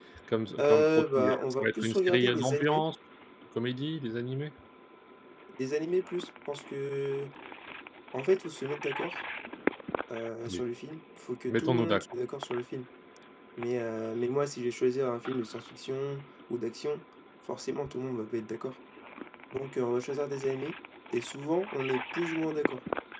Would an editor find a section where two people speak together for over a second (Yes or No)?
Yes